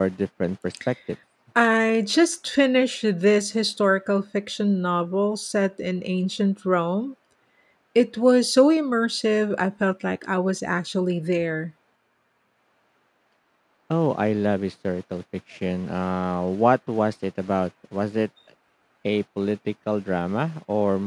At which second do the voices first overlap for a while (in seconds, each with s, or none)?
none